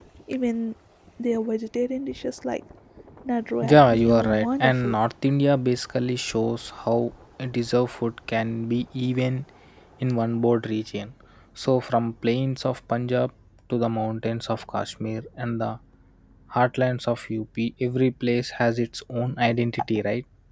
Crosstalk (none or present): present